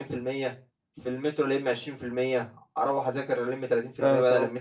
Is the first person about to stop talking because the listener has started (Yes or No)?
No